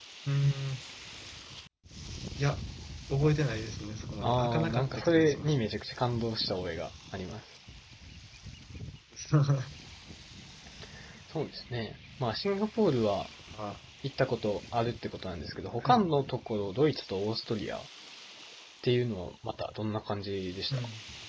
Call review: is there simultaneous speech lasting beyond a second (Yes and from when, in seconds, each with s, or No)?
Yes, from 4.2 s